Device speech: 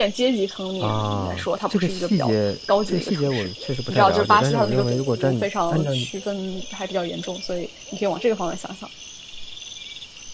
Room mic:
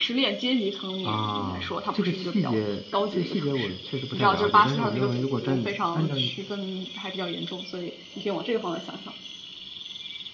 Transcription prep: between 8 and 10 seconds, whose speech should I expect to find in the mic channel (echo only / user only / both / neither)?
echo only